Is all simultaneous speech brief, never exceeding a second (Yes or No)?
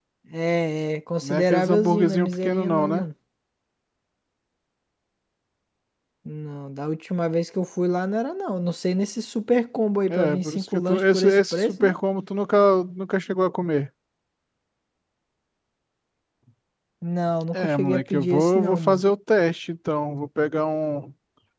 No